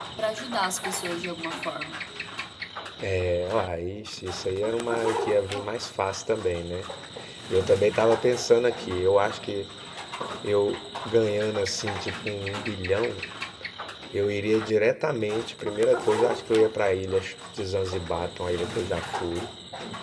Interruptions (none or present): none